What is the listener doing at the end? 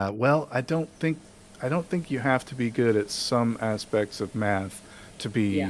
listening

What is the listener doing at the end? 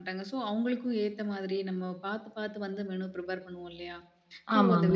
listening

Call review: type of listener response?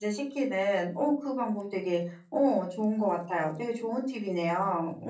taking over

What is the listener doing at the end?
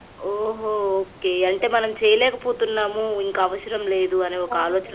taking over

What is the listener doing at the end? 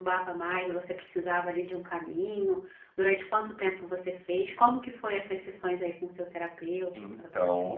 taking over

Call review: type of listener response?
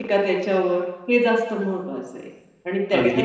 listening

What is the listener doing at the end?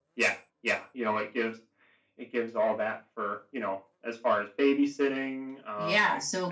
taking over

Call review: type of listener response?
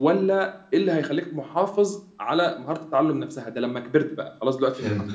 listening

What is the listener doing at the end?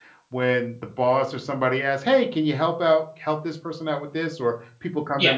listening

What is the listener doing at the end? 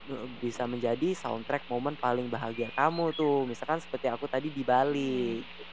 taking over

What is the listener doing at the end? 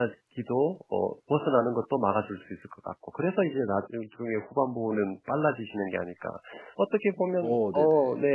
listening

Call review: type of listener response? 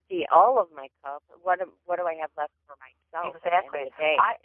taking over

